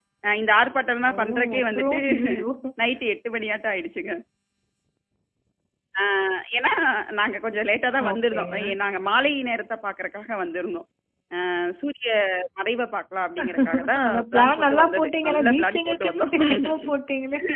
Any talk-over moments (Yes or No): Yes